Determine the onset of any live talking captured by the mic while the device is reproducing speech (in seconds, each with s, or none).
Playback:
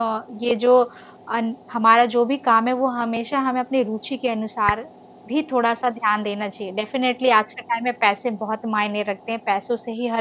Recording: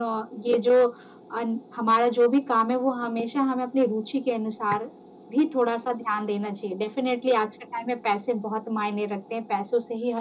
none